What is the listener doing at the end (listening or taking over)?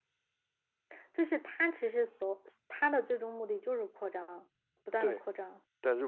taking over